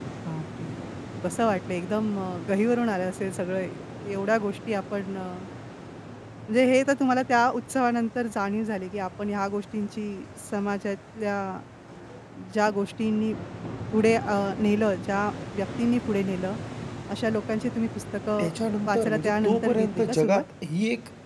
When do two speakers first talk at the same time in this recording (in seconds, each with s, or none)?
18.9 s